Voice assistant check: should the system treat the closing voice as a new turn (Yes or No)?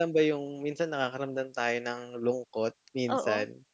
Yes